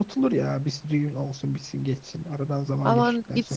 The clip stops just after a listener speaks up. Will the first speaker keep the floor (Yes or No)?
No